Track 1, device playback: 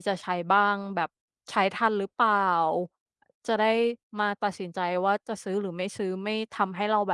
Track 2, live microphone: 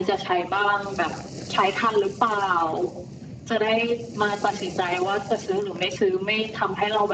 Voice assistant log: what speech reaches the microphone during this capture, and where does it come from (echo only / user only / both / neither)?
echo only